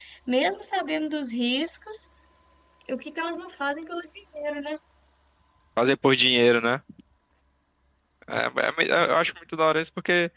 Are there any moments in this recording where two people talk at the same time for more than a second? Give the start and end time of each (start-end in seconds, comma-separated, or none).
none